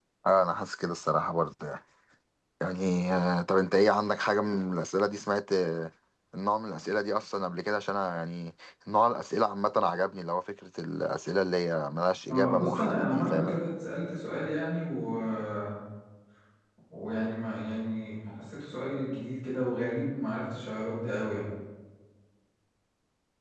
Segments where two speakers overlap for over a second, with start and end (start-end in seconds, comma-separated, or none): 12.3-13.6